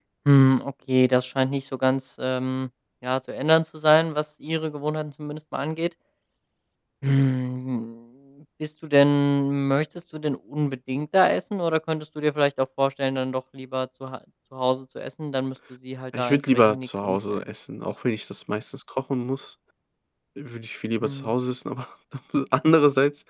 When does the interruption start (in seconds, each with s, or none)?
16.1 s